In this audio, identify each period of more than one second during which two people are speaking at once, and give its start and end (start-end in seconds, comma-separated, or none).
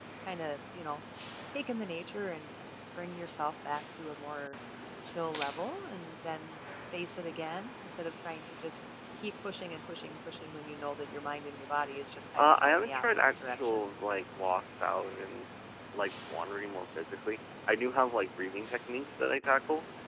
12.4-13.8